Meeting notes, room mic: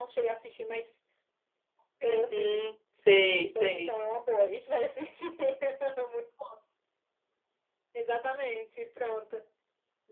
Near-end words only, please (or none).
Uhum, sei, sei.